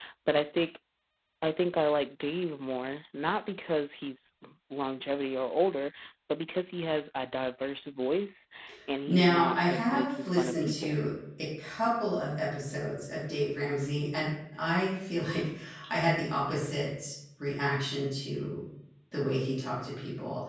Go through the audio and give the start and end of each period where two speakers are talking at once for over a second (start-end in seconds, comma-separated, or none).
9.1-10.9